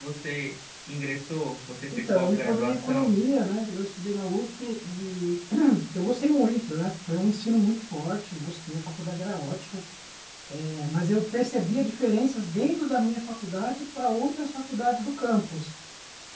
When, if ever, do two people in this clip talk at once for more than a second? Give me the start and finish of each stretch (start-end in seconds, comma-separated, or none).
2.0-3.2